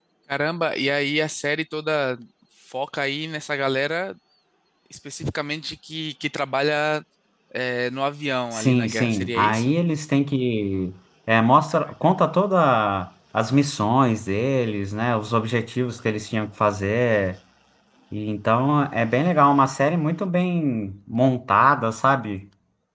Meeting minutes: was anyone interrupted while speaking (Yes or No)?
Yes